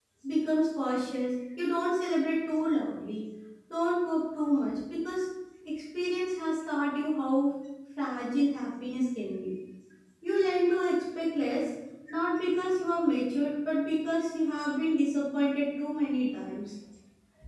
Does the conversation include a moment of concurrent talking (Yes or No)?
No